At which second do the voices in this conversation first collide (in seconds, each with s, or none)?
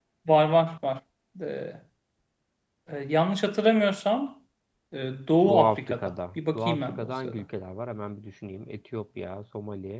5.4 s